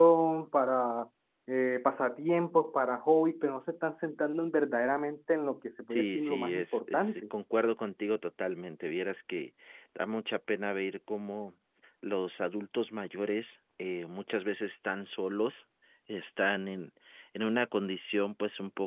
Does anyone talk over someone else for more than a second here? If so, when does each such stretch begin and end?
5.9-7.1

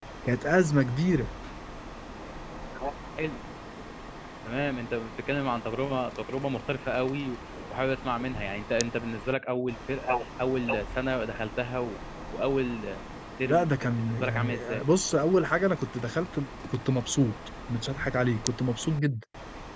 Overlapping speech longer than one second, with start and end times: 13.4-14.8

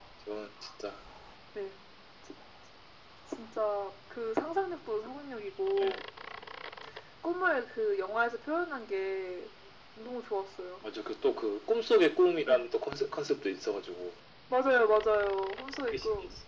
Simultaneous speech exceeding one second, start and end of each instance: none

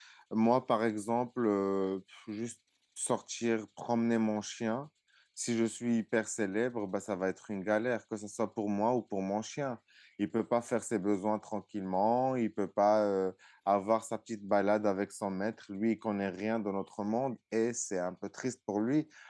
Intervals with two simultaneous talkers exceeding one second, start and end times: none

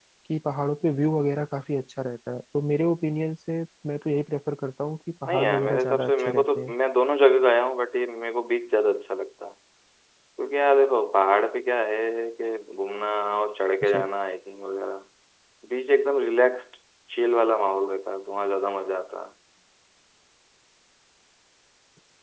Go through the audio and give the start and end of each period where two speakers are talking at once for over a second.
5.3-6.7

